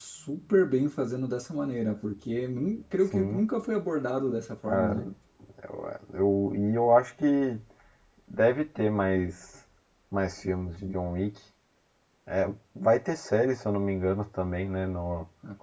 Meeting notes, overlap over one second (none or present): none